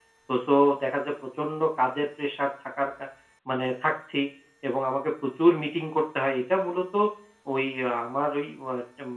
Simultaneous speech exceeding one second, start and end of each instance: none

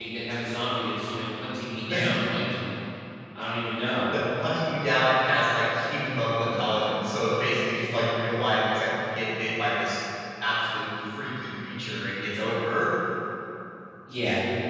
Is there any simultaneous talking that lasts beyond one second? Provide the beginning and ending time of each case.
none

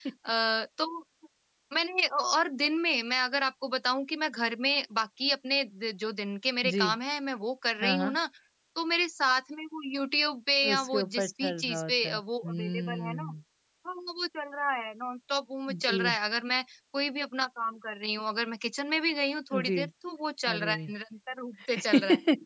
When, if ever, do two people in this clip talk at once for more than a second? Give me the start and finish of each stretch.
10.7-13.2

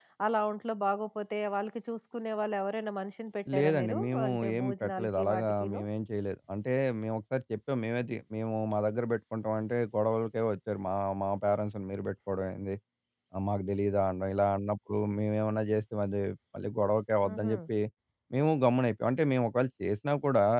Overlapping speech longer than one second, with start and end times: 3.5-5.8

